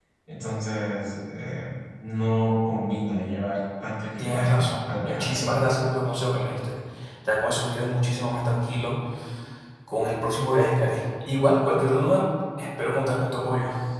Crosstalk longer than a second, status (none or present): present